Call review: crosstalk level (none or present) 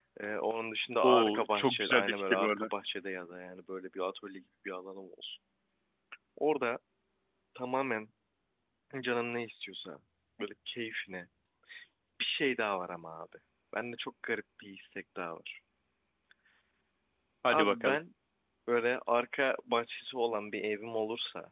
present